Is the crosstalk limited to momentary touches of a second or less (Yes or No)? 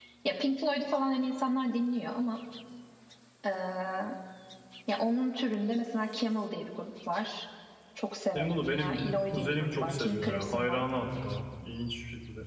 No